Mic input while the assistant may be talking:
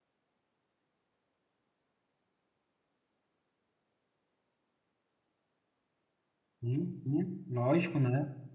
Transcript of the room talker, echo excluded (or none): Sim, sim, lógico, né?